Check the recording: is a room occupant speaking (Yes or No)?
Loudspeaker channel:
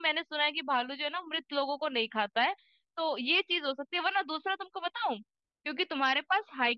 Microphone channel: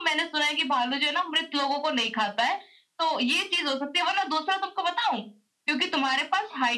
No